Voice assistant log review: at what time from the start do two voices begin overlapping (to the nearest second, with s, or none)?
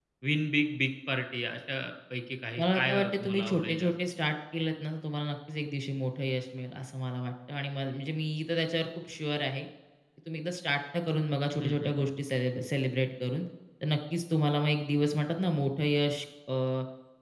3 s